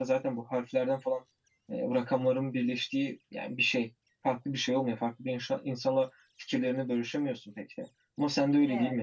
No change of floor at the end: Yes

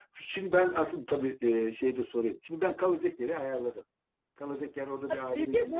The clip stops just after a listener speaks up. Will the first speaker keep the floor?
No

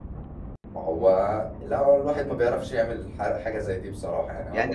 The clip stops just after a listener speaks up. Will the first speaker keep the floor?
No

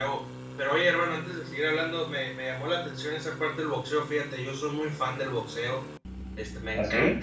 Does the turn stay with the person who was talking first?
Yes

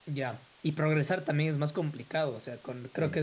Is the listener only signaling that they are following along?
Yes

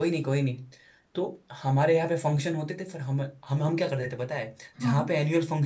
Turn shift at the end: No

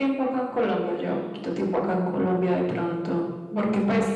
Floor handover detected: No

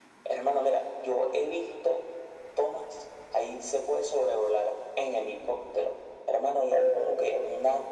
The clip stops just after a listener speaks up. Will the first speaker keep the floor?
Yes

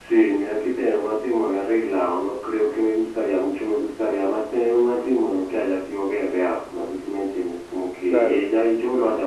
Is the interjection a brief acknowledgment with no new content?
Yes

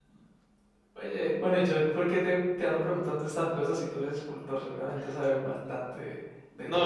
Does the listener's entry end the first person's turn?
Yes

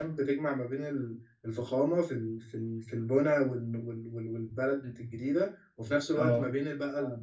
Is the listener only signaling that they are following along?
Yes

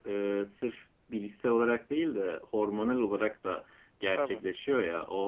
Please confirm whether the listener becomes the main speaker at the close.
No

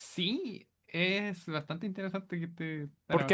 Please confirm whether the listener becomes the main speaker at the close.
Yes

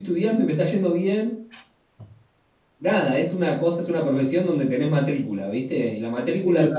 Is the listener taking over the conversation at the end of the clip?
No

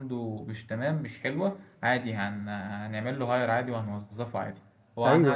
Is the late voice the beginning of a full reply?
Yes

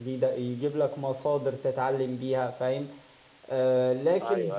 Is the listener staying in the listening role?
No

